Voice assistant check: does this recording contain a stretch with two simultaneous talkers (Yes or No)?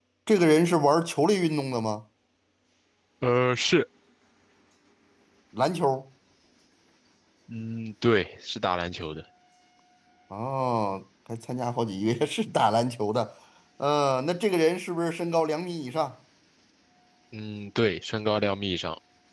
No